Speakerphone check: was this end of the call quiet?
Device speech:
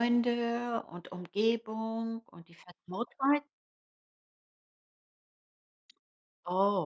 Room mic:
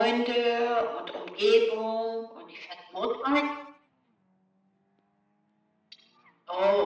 Yes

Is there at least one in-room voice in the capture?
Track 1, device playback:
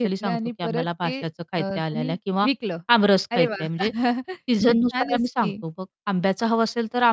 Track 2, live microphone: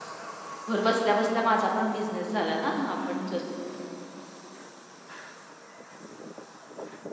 Yes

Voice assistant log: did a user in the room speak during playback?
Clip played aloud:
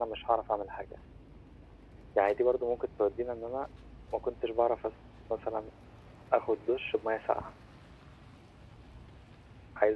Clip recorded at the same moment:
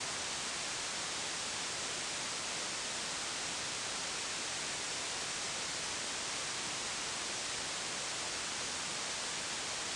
No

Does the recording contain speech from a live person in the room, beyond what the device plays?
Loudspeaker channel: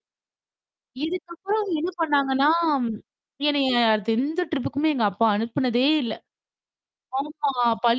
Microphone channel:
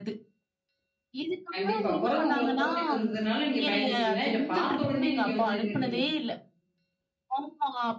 Yes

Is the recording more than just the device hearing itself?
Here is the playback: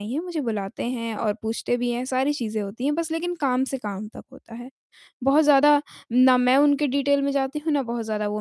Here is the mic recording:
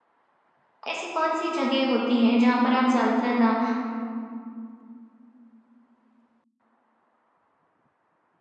Yes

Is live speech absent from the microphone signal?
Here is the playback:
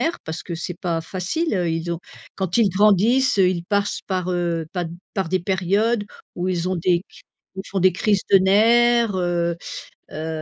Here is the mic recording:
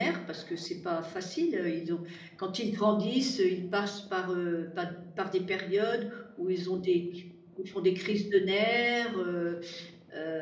Yes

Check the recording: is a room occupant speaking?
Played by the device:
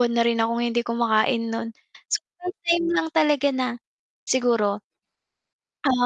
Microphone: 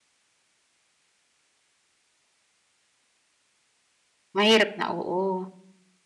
Yes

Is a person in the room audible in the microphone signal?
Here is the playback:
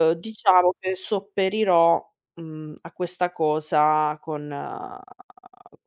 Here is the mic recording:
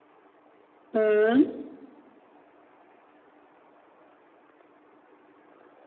Yes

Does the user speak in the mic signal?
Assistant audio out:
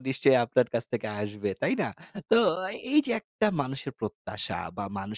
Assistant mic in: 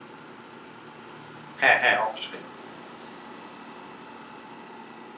Yes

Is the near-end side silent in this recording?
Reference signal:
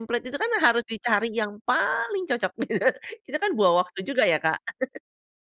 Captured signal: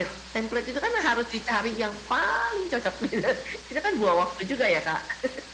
Yes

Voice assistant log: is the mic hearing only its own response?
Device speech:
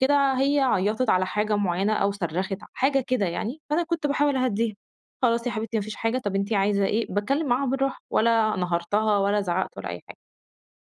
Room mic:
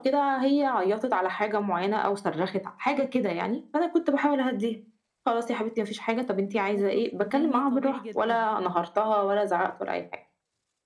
No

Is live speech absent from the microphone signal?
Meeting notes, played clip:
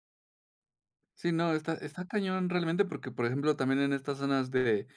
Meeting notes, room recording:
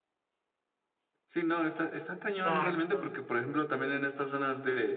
No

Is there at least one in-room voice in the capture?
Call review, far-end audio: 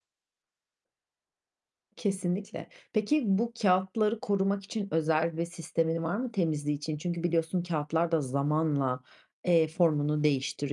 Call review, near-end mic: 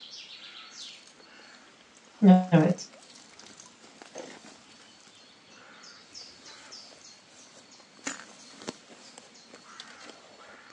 Yes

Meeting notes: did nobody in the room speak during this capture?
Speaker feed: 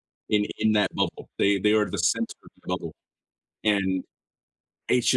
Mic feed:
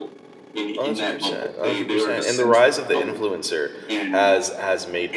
No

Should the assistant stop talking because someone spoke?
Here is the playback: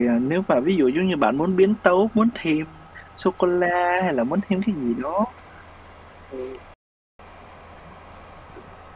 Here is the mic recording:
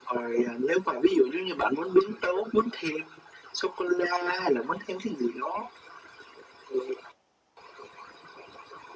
No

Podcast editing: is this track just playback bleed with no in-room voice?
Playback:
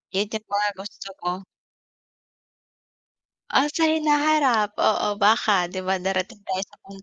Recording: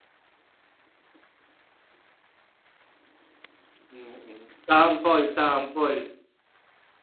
No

